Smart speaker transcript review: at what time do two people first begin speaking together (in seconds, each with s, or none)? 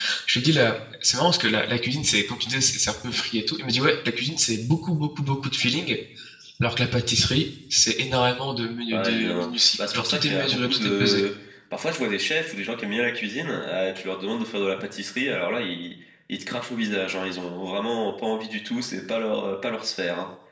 8.9 s